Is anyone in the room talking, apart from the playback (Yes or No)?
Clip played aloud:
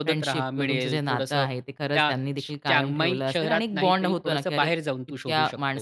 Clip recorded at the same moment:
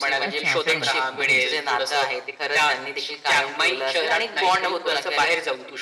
Yes